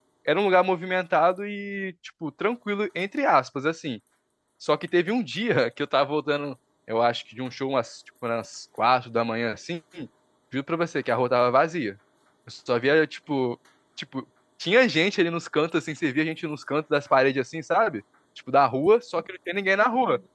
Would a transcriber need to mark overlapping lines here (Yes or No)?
No